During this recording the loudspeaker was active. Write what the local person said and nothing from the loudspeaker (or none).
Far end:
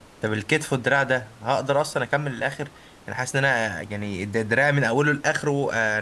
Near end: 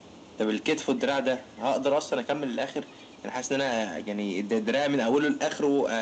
none